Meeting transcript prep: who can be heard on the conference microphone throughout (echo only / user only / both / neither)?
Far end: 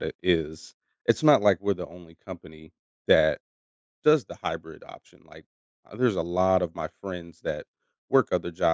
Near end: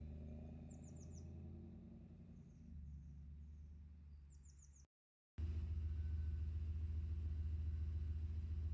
neither